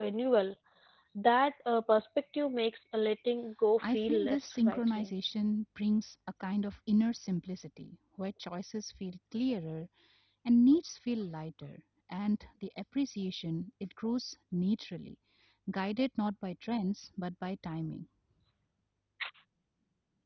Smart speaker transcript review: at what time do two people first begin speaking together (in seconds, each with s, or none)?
3.8 s